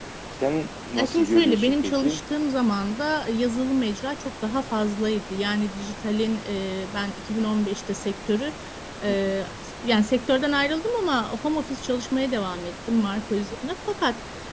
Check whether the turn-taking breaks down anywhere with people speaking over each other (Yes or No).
Yes